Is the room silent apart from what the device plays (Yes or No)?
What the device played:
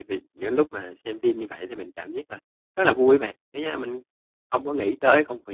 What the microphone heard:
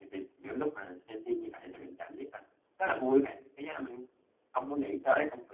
Yes